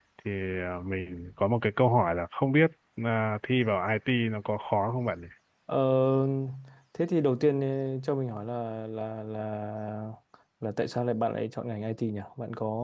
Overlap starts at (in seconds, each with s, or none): none